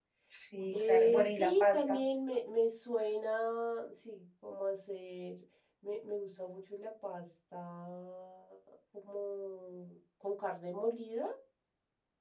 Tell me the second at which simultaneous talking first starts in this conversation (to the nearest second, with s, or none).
1 s